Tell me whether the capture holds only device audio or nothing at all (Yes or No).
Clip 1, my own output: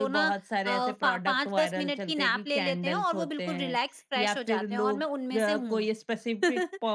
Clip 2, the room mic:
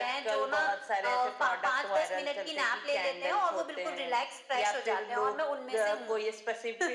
Yes